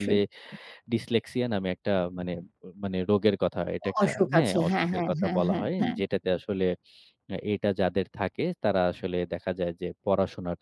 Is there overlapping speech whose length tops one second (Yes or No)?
Yes